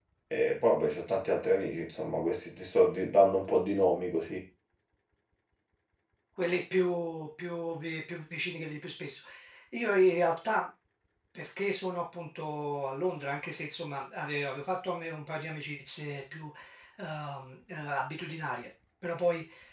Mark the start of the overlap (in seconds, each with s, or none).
none